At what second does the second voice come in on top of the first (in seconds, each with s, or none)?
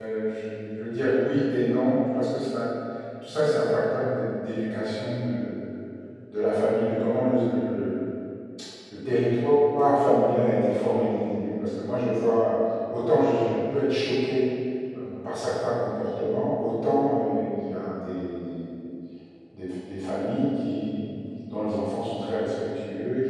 none